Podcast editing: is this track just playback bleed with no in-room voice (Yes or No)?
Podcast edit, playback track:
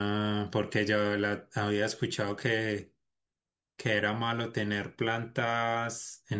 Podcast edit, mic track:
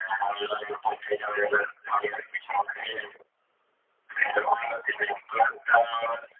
Yes